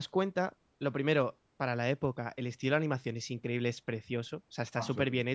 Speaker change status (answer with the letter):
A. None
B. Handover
A